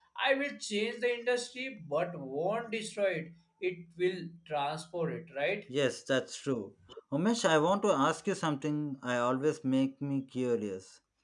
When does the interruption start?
none

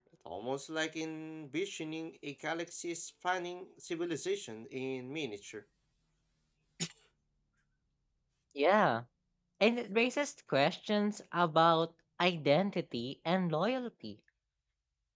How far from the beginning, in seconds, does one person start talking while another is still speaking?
none

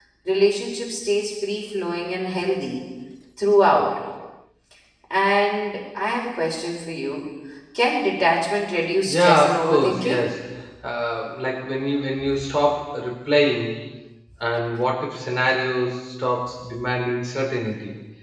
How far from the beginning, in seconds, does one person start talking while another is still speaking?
9.1 s

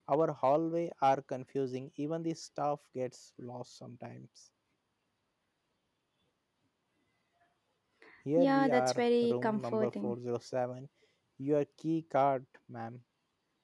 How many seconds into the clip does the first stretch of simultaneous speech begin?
8.4 s

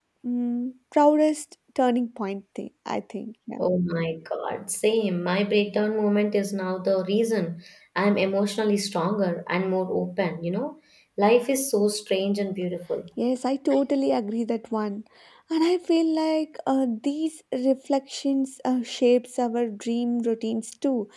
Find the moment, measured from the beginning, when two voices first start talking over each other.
none

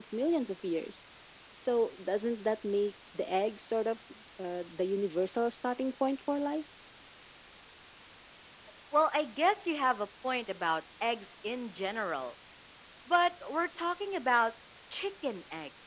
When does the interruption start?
none

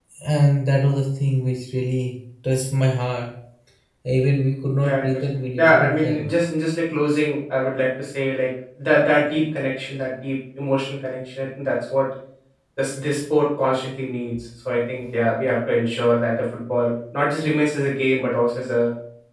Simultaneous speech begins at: 4.8 s

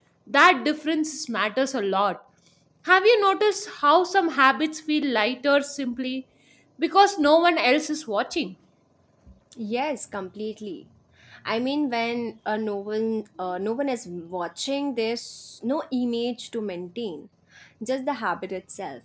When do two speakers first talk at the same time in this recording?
none

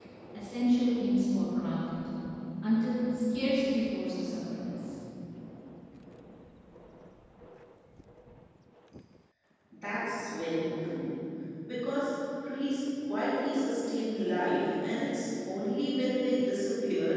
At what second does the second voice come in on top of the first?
none

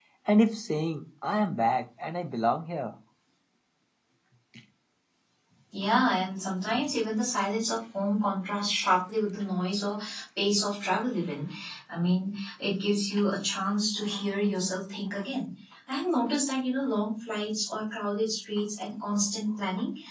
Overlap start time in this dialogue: none

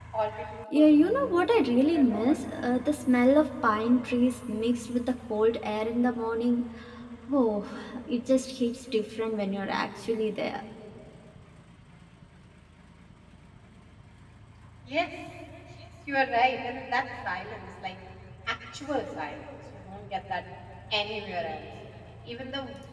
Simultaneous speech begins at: 0.7 s

